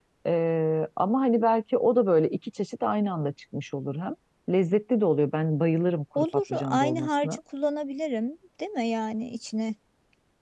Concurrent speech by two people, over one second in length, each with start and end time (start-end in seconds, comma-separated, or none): 6.2-7.4